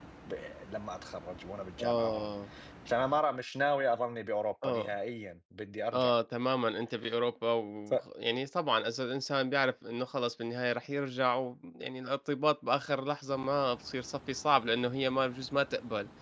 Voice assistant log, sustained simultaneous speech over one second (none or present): none